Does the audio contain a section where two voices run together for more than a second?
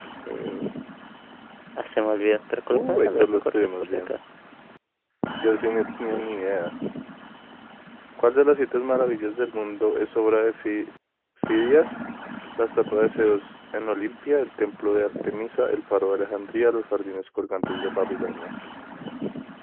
Yes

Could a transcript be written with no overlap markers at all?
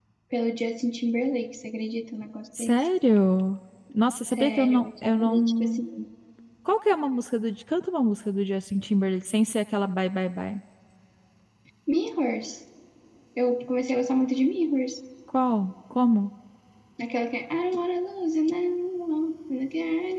No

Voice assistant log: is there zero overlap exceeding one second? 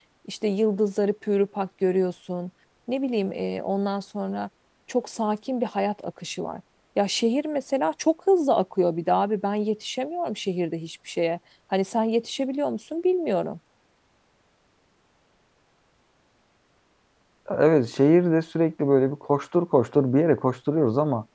Yes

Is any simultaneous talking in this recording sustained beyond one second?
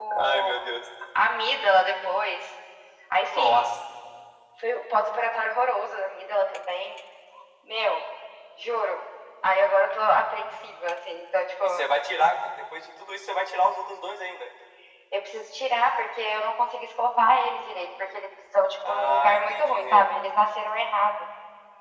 Yes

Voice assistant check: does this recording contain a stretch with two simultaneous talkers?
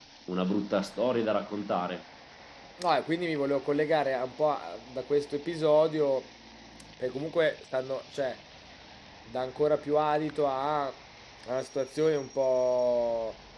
No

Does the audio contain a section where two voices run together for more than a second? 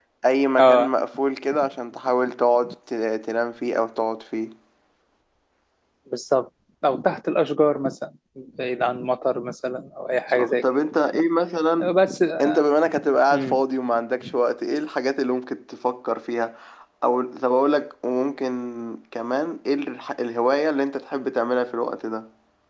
No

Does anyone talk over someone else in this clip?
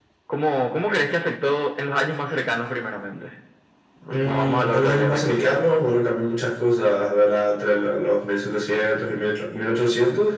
Yes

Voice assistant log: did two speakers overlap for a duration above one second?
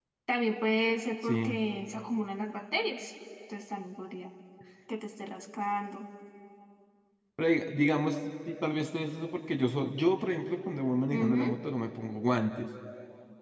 No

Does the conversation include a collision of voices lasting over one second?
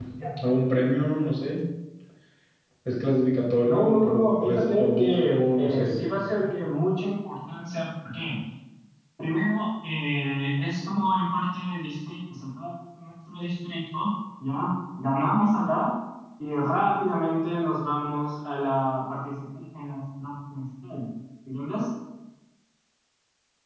Yes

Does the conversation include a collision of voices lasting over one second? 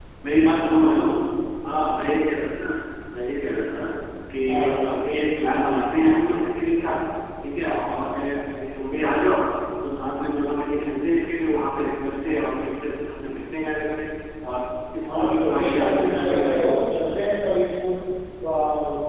Yes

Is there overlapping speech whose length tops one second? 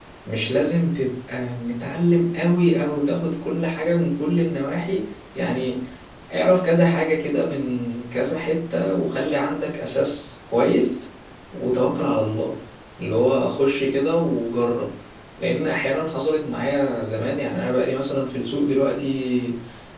No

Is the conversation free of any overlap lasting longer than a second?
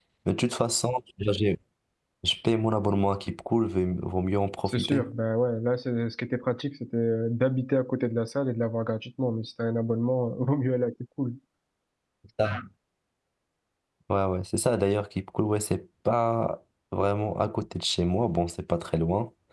Yes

